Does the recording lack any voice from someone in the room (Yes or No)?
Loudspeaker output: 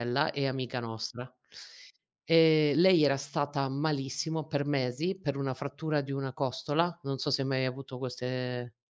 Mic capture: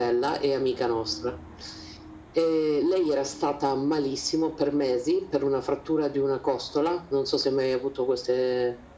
Yes